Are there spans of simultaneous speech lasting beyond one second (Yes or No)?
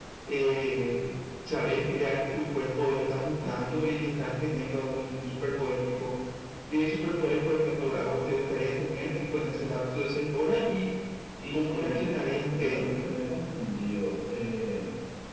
Yes